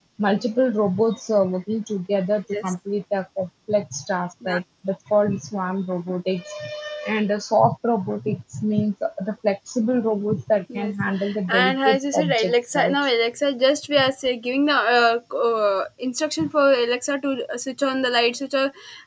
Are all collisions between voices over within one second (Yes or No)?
No